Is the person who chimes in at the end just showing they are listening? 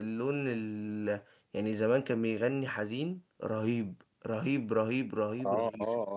No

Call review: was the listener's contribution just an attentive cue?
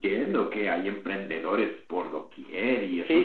No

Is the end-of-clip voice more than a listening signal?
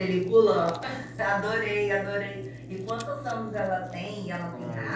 Yes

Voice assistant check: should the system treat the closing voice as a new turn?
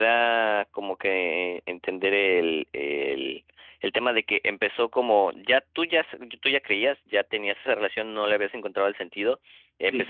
No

